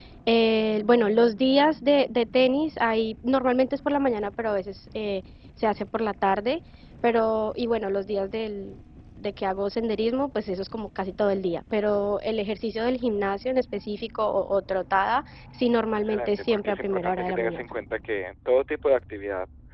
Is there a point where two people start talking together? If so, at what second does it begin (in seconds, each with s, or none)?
16.0 s